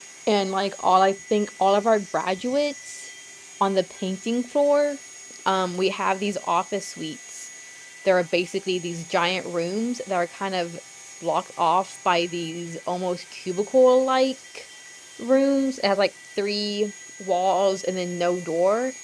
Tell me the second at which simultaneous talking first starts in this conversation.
none

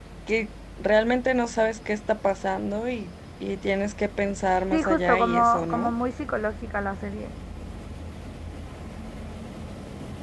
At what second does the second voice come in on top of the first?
4.7 s

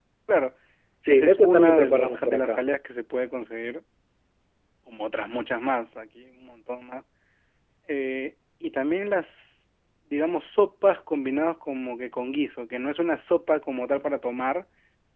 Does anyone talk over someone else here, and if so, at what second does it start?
1.1 s

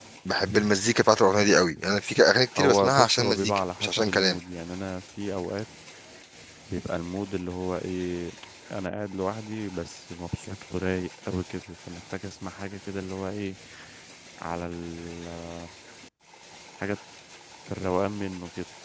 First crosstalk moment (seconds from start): 2.5 s

